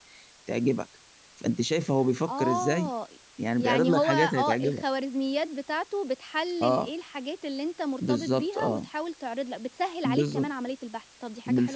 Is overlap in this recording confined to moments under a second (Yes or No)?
No